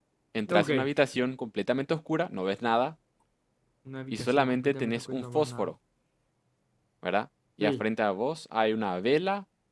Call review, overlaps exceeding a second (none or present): present